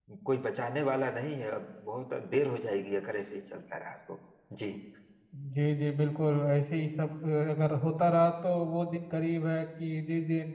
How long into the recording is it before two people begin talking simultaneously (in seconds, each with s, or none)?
none